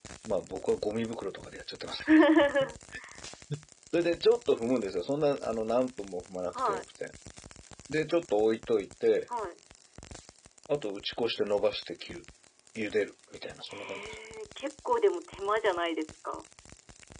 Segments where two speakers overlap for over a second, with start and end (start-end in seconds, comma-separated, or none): none